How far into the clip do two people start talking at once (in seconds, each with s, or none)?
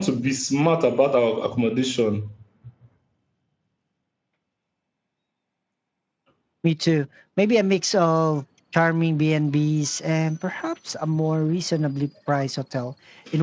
none